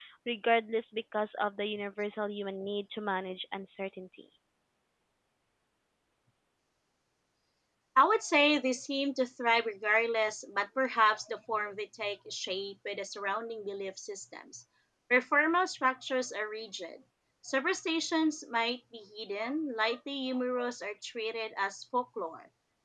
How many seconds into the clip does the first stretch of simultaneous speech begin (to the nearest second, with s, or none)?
none